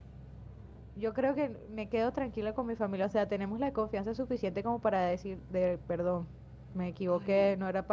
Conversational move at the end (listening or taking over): listening